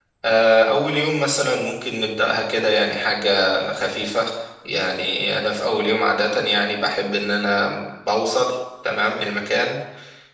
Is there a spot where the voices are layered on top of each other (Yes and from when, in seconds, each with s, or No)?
No